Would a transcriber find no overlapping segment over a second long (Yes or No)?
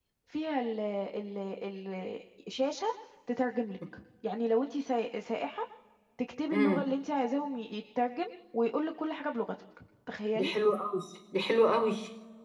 Yes